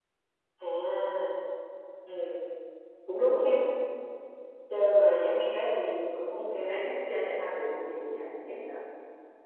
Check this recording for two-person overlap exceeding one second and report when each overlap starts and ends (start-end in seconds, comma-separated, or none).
none